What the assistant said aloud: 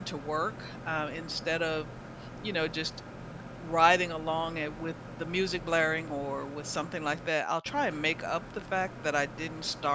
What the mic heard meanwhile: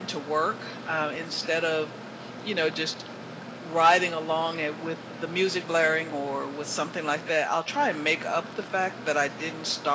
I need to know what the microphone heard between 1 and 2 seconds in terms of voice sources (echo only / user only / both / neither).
echo only